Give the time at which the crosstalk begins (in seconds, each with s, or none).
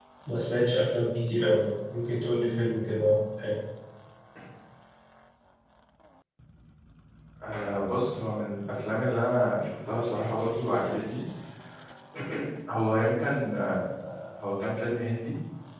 none